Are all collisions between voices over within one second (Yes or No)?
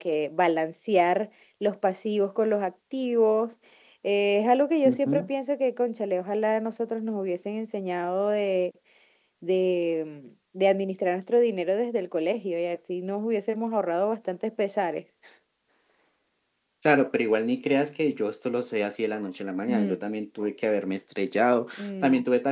Yes